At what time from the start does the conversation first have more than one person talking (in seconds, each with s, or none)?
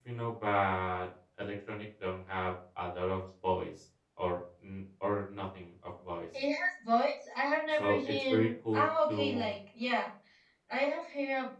7.7 s